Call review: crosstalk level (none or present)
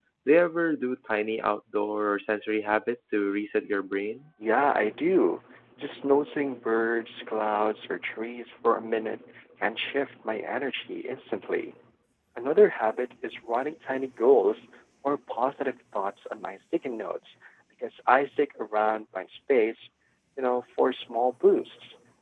none